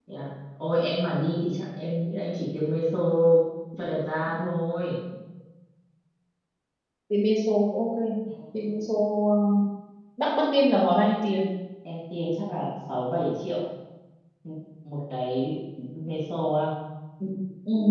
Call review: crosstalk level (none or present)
none